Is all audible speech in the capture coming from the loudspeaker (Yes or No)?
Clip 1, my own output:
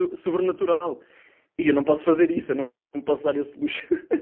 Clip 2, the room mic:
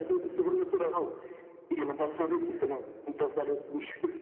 Yes